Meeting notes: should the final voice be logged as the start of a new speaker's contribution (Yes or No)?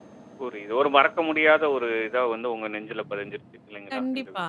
Yes